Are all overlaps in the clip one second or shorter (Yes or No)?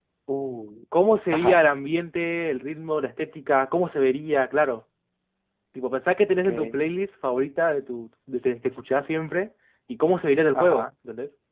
Yes